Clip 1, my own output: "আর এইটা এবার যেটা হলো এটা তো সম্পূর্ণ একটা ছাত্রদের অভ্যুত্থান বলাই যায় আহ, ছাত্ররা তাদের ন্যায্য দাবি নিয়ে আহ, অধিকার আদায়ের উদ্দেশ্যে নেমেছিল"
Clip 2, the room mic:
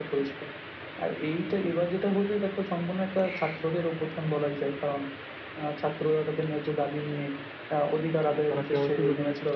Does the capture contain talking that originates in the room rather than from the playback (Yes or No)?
Yes